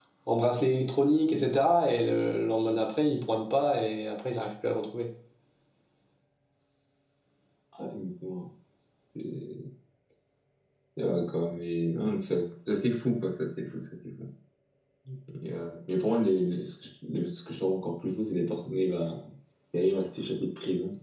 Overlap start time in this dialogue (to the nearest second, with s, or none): none